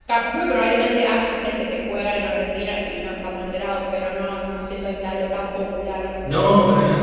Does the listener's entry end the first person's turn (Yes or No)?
Yes